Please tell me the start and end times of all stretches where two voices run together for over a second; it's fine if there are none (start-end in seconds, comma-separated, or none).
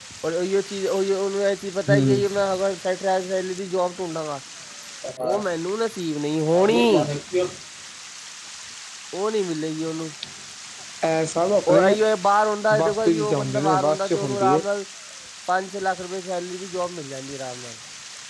12.8-14.6